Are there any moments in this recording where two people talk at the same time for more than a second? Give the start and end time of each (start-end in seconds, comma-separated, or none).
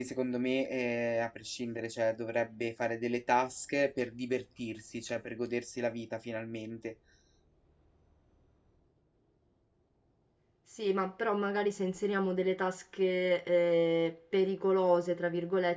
none